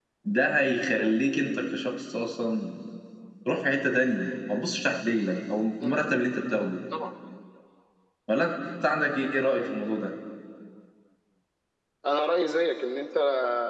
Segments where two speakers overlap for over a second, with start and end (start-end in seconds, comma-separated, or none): none